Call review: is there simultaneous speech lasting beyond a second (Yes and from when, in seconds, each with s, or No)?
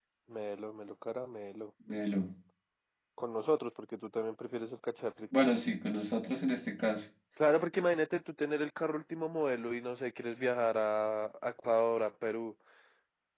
No